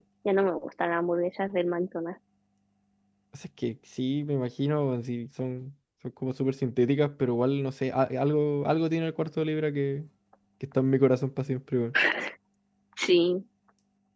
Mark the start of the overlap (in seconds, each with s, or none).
none